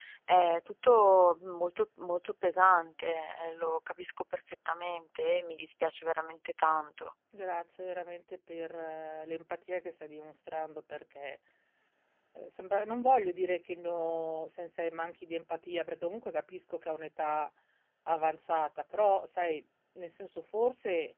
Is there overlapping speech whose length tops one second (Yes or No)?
No